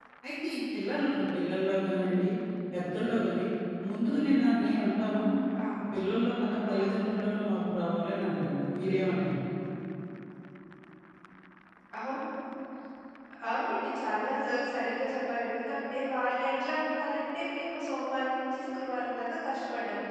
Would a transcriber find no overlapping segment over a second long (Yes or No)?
Yes